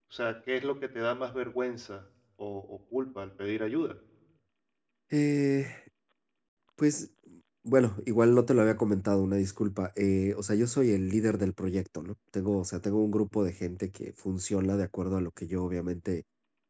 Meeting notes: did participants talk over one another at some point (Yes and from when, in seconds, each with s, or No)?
No